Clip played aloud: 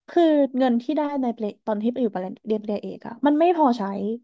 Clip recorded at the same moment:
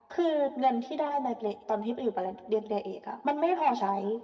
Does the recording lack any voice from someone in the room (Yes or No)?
Yes